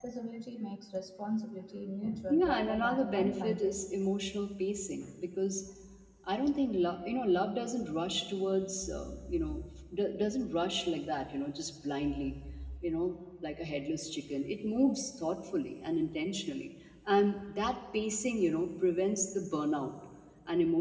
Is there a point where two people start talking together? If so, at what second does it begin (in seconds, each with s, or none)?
2.3 s